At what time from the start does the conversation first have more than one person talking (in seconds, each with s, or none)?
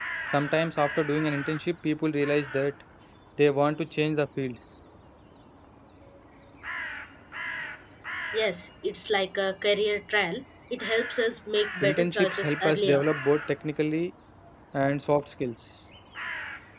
11.8 s